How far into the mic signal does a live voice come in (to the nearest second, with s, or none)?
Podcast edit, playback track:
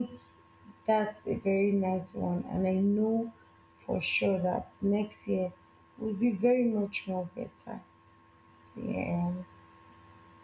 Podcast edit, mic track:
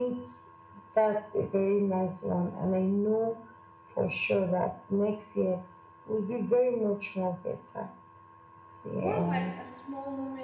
9 s